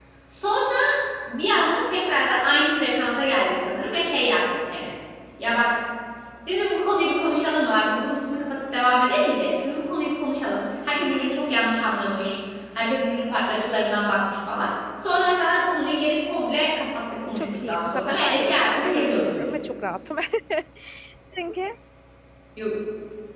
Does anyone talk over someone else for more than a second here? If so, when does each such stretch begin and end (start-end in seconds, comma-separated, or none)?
17.4-19.4